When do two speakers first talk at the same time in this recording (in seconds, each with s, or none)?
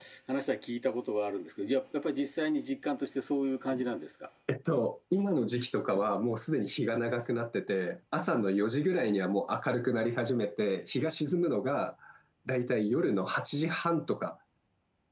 none